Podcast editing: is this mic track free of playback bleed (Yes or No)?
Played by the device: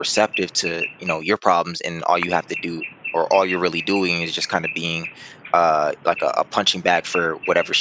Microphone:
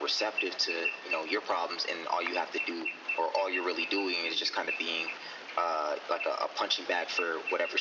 No